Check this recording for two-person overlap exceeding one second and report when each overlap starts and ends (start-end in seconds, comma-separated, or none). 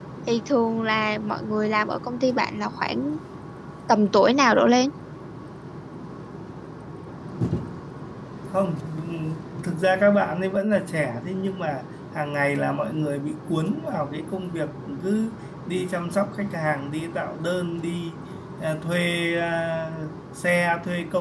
none